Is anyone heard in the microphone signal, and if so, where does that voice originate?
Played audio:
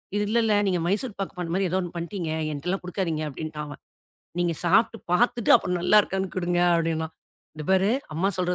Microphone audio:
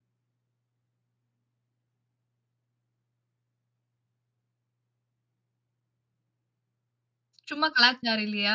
user only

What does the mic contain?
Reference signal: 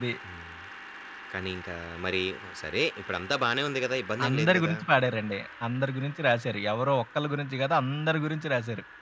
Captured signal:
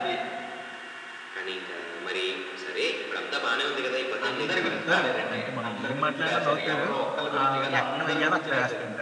both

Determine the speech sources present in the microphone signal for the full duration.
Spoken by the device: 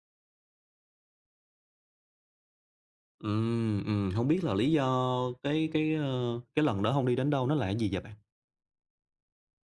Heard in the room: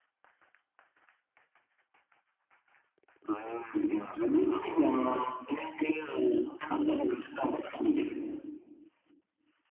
echo only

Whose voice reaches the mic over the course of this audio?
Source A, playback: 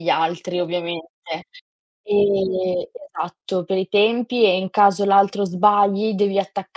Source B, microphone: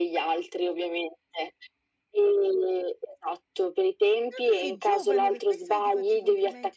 both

